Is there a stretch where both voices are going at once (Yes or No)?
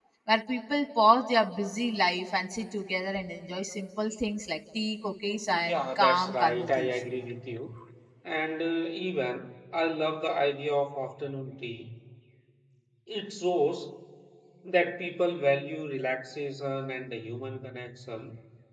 Yes